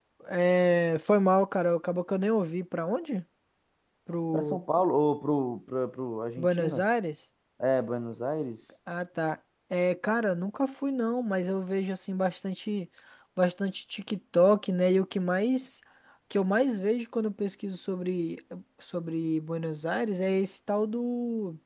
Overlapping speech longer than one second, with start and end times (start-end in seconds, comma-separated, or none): none